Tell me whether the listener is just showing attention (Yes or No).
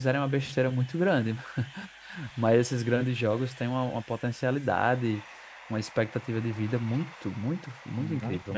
No